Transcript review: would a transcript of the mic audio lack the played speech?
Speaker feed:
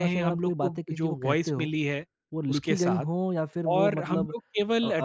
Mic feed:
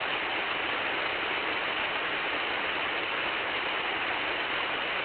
Yes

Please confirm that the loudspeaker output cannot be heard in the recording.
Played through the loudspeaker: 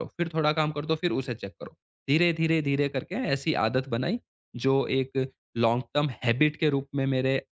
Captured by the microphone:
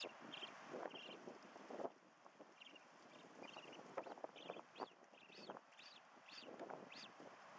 Yes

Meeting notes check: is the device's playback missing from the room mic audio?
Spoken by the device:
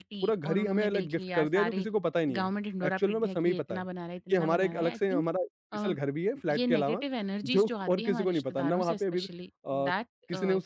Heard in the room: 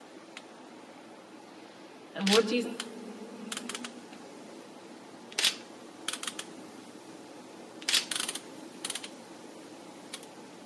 Yes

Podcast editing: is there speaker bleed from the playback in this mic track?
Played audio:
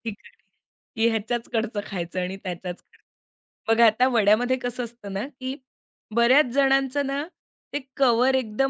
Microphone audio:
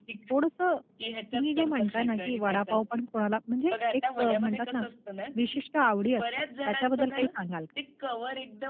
Yes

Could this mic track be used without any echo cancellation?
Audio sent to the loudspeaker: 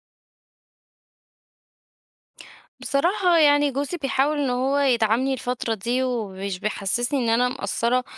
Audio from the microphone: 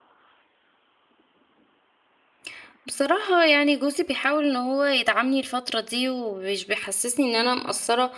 No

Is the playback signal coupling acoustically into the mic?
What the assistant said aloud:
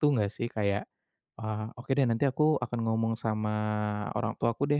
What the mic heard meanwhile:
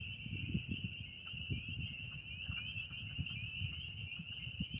No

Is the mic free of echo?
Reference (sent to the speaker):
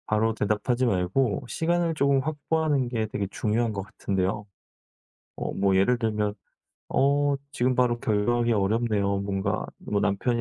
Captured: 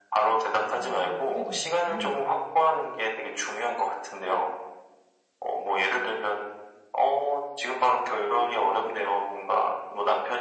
No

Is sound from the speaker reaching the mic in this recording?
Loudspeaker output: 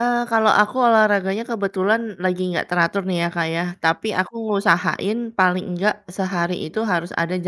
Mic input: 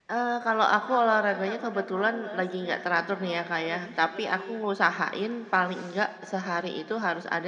Yes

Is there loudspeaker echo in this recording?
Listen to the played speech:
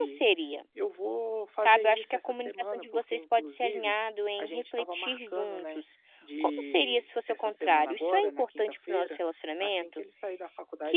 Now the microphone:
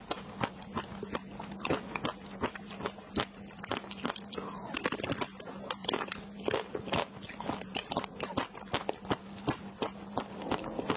No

